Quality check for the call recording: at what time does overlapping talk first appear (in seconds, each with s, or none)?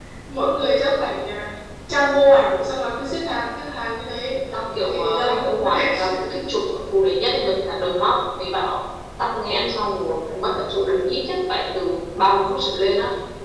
4.5 s